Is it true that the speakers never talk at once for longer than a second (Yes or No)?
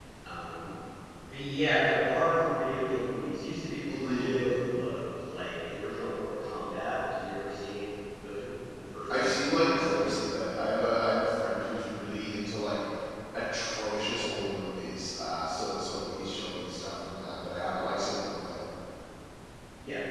No